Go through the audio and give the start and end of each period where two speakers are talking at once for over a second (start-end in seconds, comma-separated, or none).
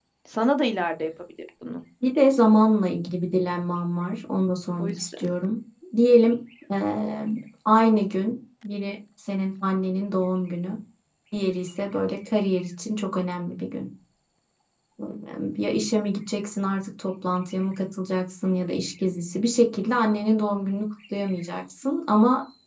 none